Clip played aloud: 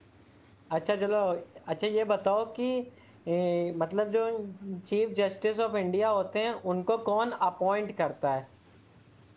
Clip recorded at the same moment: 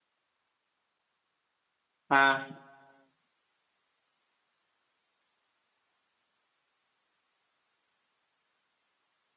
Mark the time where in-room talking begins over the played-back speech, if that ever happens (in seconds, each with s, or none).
2.1 s